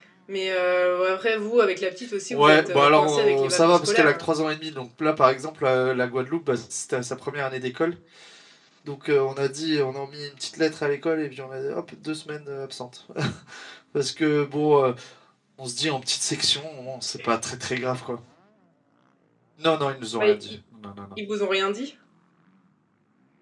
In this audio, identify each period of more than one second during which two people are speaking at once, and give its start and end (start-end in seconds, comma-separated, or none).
2.3-4.3